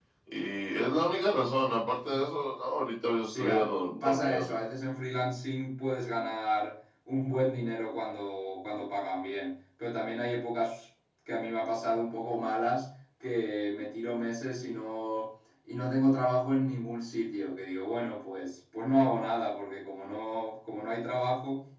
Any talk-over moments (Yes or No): Yes